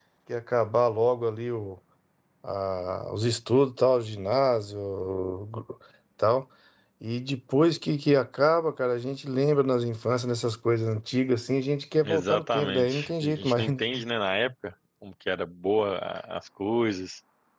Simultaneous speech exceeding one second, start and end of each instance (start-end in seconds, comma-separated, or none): 12.0-13.7